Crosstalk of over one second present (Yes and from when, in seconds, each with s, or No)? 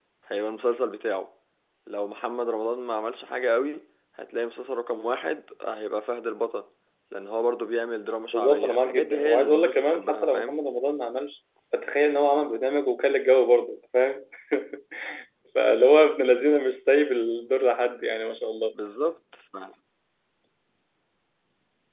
Yes, from 8.3 s